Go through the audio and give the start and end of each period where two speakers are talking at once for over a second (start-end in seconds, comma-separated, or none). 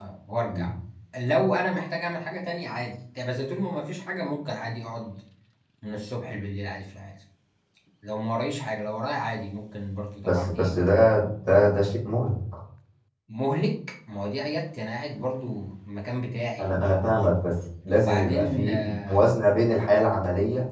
18.0-19.3